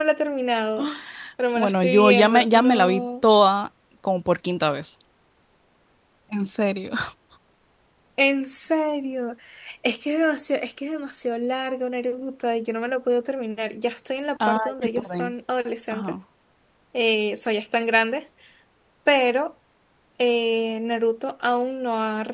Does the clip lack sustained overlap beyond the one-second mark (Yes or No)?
No